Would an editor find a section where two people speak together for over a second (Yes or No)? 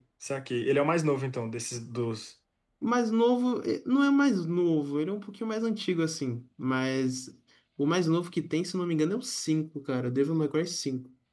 No